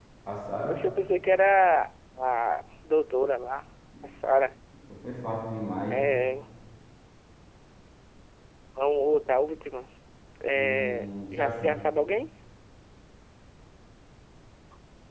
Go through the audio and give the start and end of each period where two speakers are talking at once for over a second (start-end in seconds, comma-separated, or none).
10.5-11.8